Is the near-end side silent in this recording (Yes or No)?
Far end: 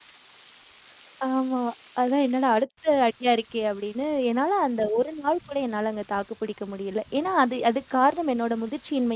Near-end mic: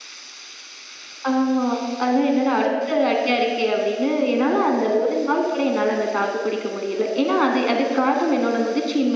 Yes